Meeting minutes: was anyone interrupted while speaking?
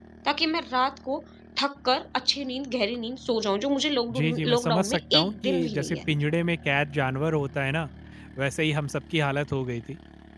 Yes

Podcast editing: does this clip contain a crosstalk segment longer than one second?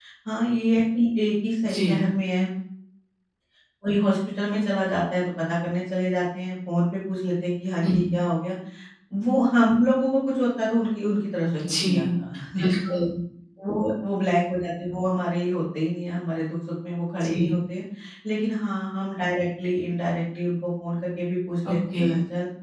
No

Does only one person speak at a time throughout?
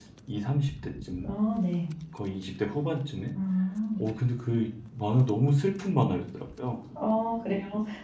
Yes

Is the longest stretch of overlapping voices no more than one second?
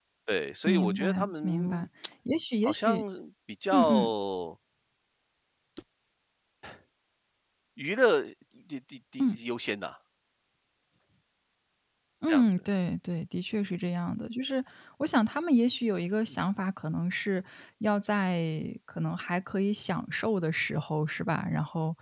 No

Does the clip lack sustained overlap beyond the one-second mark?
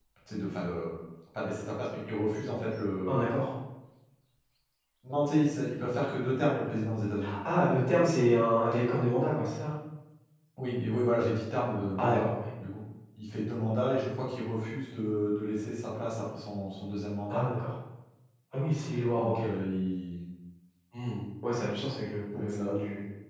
Yes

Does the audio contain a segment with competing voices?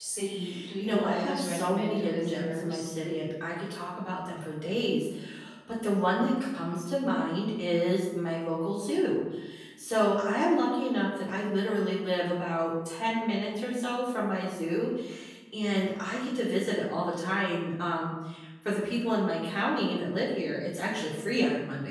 Yes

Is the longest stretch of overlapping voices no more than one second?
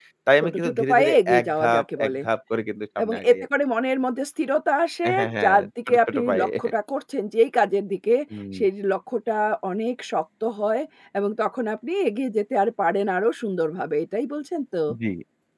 No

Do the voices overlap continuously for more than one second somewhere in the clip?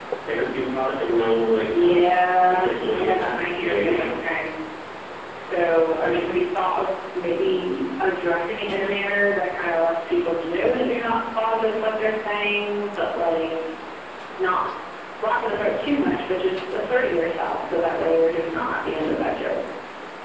Yes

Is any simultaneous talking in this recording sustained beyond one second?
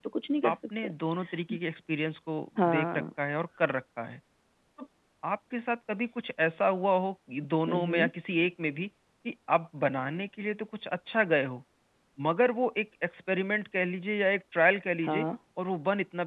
No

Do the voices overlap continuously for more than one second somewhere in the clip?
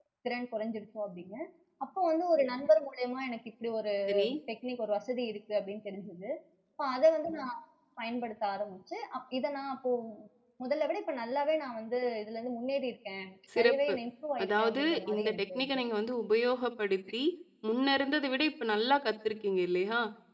Yes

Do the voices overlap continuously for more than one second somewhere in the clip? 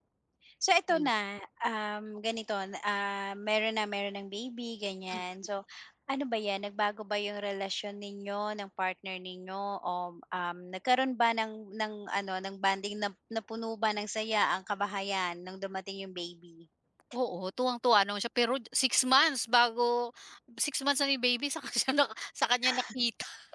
No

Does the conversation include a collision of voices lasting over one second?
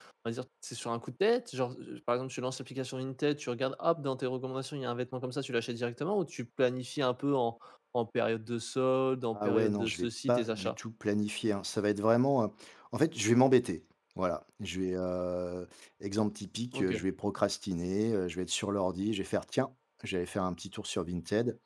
Yes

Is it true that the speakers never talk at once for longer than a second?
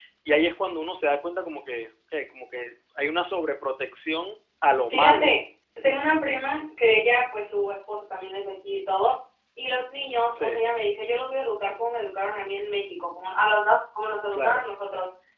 Yes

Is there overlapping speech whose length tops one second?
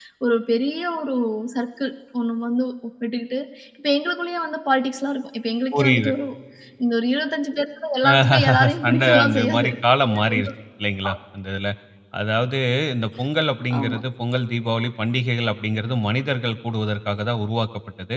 Yes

